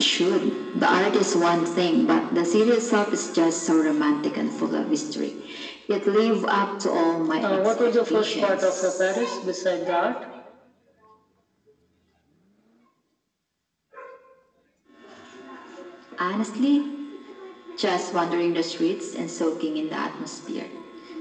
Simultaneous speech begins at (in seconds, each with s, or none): 7.4 s